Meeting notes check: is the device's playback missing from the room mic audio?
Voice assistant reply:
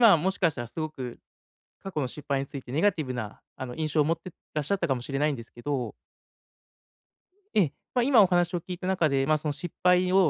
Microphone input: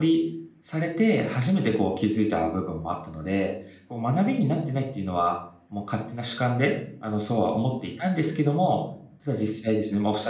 Yes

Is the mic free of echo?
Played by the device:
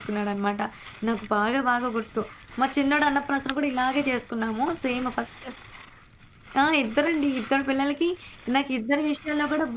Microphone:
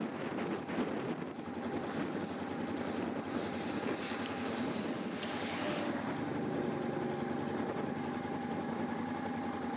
Yes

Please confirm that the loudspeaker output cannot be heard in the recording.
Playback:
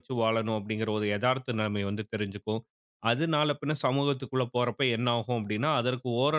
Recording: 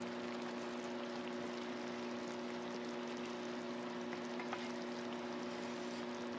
Yes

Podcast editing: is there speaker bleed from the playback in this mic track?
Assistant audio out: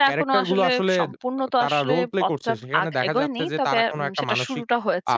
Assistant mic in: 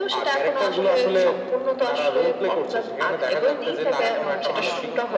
Yes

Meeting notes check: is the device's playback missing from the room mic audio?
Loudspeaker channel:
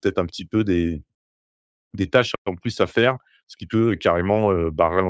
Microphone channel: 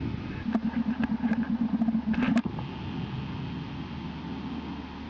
Yes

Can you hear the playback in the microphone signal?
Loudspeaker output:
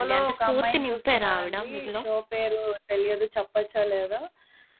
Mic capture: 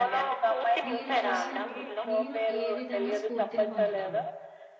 Yes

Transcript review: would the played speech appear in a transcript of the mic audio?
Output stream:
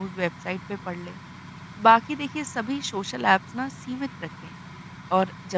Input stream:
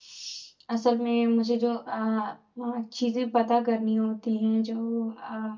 No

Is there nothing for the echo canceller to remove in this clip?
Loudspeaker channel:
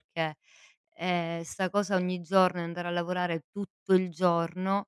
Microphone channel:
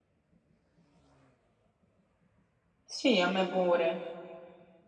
Yes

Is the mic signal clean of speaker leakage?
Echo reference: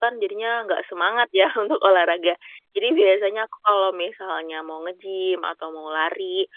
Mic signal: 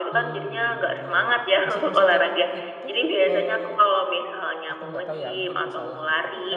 No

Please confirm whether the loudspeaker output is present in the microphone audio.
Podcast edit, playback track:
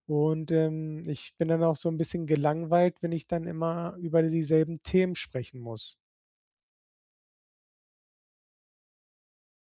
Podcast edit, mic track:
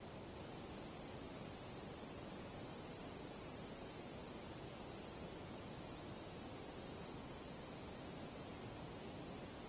No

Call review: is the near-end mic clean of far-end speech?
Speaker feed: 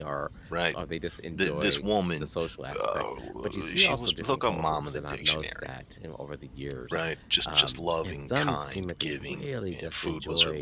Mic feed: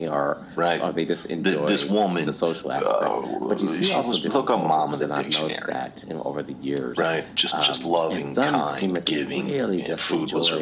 No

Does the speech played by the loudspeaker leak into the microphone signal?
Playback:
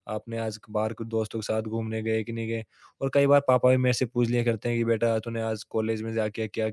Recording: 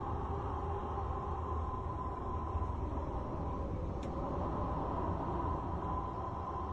No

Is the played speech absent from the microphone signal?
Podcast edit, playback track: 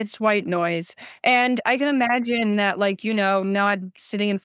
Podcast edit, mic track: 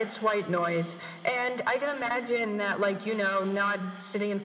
No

